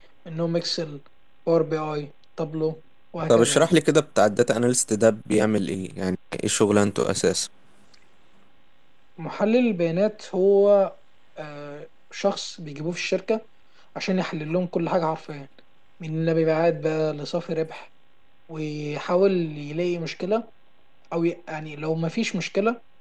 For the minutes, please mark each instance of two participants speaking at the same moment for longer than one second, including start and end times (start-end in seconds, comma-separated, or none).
none